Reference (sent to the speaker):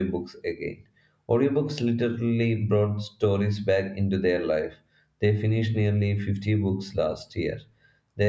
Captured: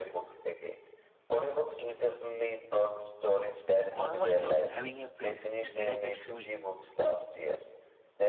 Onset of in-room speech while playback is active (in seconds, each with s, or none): 3.7 s